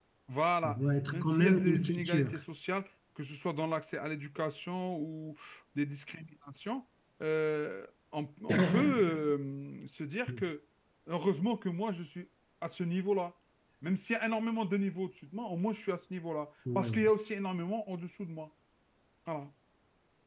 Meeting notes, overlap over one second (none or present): present